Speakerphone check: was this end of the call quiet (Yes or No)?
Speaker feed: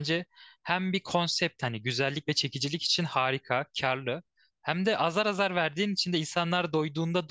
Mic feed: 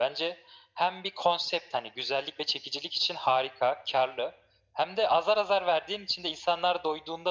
Yes